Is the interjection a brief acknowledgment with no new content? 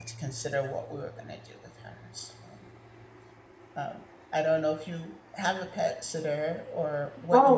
No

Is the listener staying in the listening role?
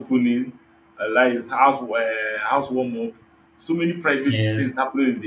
Yes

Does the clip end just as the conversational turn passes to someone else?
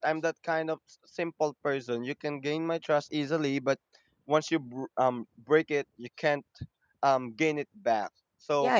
Yes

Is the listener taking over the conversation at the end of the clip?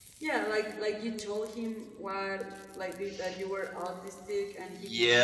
Yes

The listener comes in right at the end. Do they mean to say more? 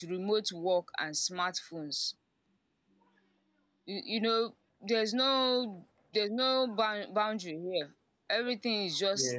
No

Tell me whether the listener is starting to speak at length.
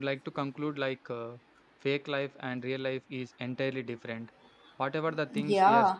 Yes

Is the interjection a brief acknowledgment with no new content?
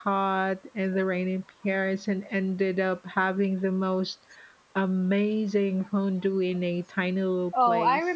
No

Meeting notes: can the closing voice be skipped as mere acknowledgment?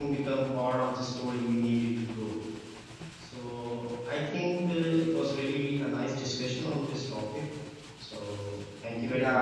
No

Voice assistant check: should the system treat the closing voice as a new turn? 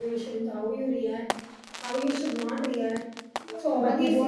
Yes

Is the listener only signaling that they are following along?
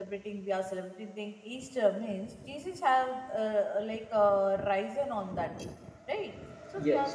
Yes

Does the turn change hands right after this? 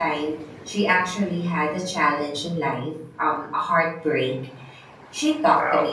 No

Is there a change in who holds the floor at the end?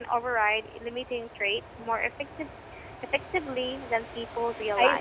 Yes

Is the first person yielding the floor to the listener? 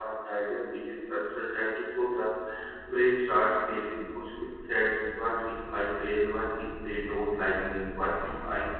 No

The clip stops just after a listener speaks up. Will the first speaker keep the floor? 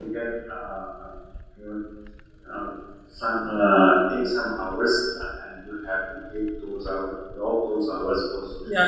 No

